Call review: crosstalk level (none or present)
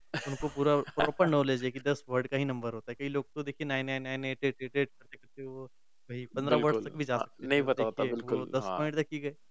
present